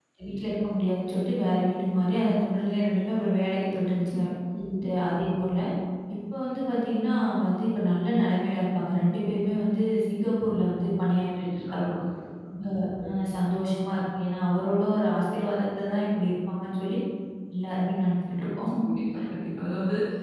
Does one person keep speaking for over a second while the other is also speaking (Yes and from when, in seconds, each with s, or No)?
No